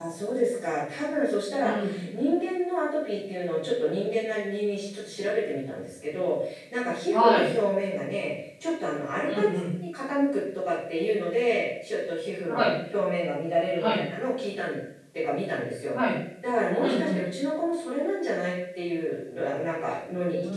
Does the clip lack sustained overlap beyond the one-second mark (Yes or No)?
Yes